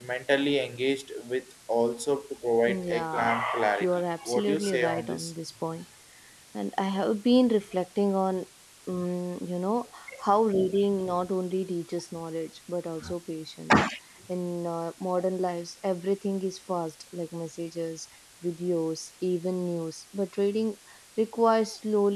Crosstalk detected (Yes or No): Yes